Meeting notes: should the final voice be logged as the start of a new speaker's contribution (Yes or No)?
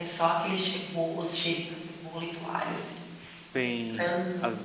Yes